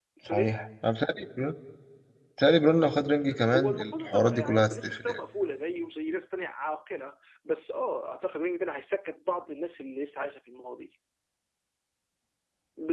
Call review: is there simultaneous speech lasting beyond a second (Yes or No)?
Yes